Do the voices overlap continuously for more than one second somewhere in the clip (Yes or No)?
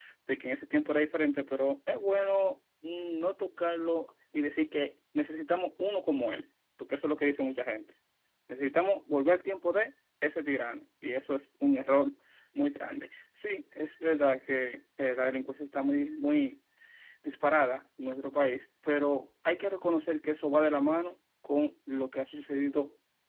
No